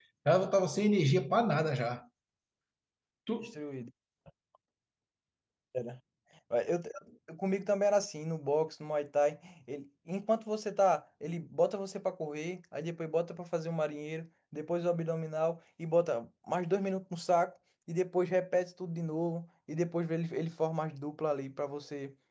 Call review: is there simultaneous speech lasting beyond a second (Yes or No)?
No